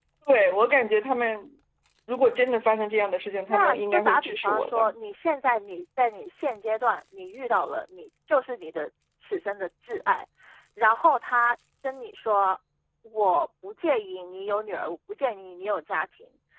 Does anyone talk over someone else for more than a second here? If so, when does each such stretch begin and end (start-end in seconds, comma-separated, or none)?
3.5-4.9